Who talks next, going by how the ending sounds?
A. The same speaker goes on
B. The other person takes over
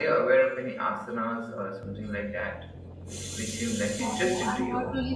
B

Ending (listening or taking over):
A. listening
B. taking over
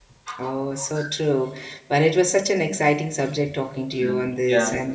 A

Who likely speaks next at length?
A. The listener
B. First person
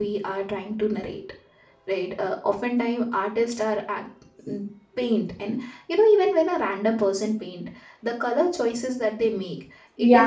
B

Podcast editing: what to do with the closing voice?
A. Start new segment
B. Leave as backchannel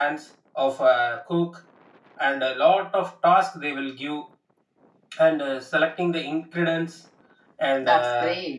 B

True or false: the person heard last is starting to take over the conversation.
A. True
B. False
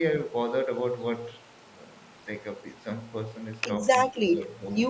A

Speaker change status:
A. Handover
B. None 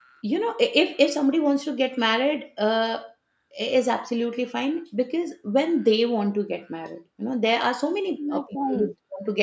B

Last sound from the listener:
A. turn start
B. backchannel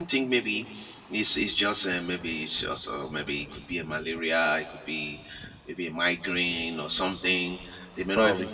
B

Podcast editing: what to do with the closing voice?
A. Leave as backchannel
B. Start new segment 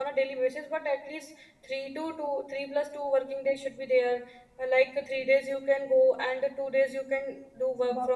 B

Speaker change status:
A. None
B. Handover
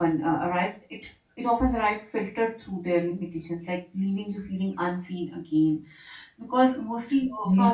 A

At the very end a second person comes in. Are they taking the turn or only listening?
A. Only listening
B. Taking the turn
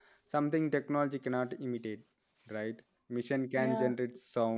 A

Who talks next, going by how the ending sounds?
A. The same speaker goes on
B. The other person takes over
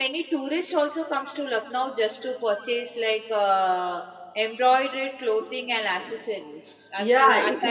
B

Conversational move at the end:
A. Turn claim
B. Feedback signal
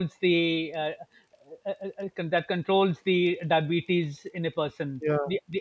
A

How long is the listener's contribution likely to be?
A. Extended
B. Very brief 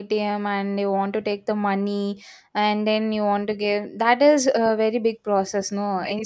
A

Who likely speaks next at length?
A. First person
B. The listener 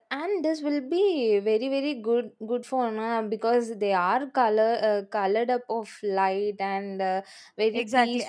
B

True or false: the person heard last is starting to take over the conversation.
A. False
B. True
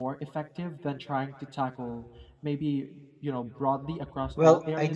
B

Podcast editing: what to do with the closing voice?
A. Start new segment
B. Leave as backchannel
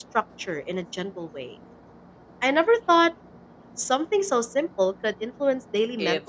A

